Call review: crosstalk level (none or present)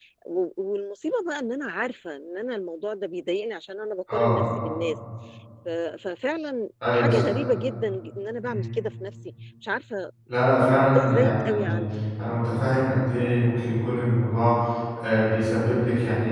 present